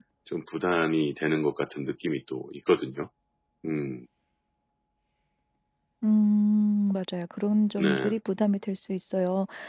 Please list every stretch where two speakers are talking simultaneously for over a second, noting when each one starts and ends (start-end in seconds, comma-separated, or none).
none